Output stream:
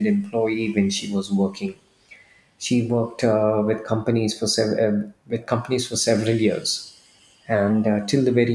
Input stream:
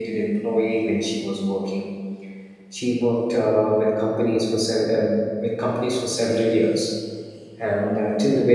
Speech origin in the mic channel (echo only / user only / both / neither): echo only